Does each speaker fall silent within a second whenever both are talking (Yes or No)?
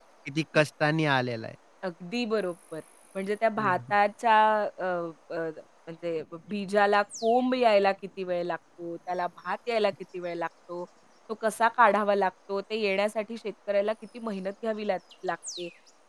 Yes